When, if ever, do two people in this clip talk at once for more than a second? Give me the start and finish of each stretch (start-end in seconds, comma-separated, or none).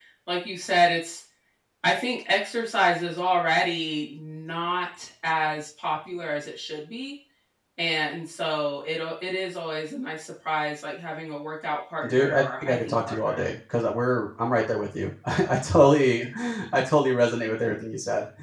12.1-13.4